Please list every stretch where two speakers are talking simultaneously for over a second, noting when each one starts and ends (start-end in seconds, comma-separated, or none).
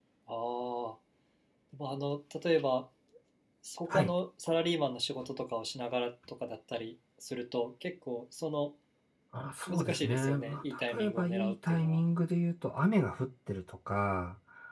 9.7-12.0